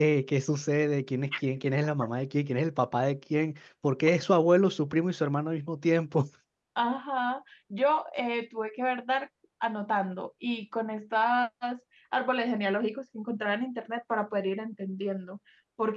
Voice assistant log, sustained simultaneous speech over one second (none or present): none